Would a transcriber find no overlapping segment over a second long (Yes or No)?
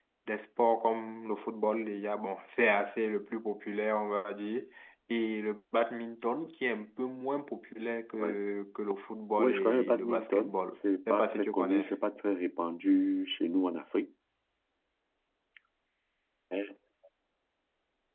No